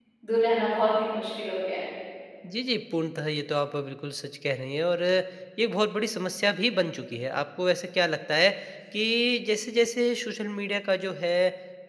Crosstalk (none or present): none